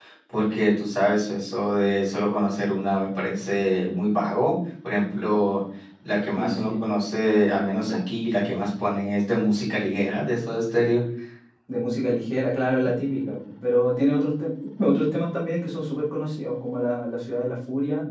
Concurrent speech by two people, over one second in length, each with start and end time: none

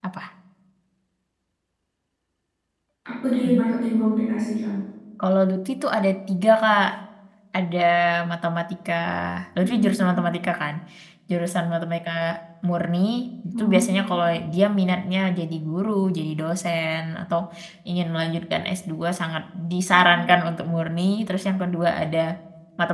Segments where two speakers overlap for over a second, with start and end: 3.4-4.7

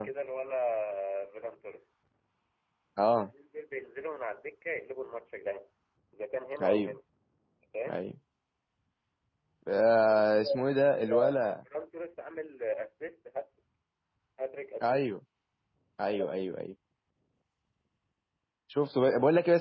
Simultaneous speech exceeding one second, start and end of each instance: 10.1-11.6

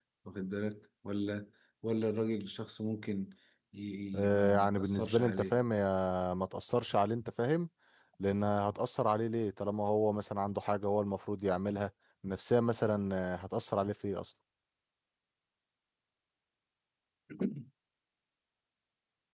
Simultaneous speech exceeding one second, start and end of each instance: 4.2-5.6

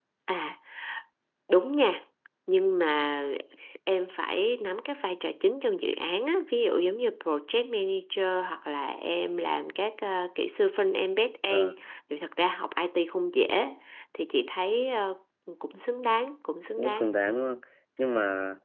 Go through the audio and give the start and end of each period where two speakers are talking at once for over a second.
none

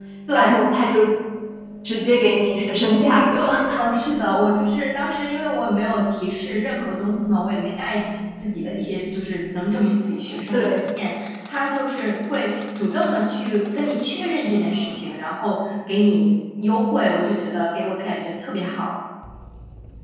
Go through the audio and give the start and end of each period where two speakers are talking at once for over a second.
none

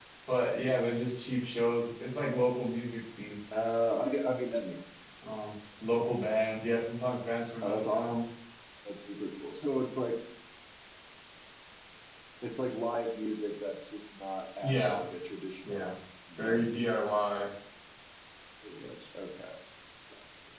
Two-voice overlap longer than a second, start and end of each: none

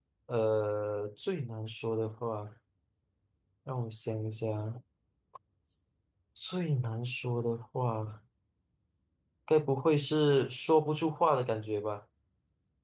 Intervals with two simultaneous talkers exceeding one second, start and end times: none

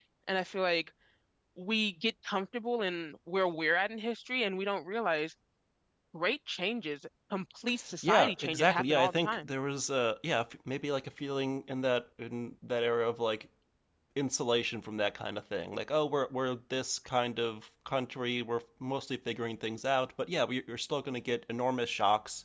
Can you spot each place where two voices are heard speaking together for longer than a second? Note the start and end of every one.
8.0-9.5

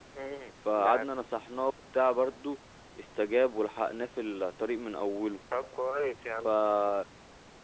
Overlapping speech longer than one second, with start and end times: none

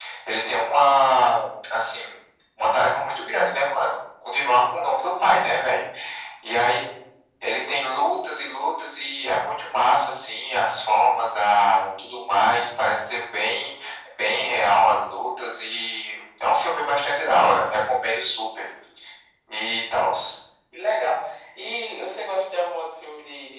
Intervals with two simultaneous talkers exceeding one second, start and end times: none

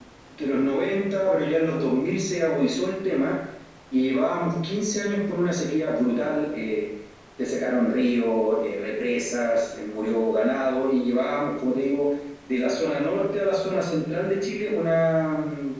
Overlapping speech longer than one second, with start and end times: none

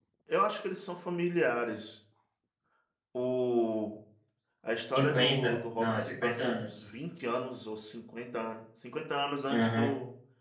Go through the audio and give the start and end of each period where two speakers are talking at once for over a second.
4.9-6.8

